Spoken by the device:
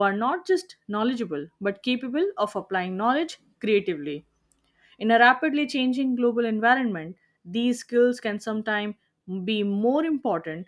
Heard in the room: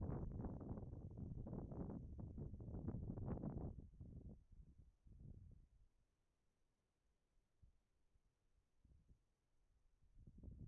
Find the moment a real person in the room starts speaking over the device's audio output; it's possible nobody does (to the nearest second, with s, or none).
none